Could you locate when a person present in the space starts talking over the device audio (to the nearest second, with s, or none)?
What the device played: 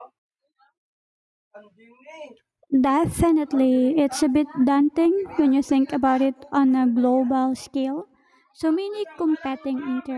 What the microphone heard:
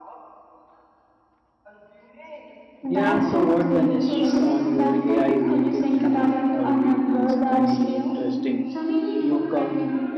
3 s